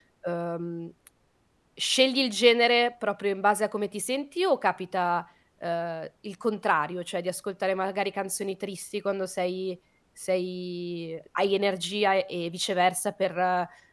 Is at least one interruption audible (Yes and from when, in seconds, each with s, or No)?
No